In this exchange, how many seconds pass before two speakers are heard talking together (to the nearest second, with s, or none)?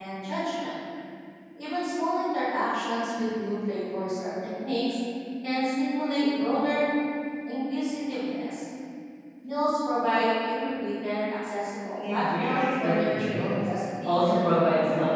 12 s